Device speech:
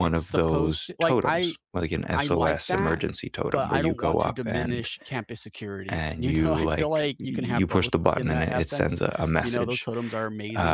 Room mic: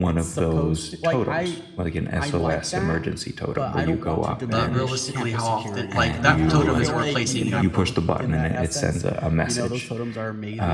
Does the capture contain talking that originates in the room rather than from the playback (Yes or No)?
Yes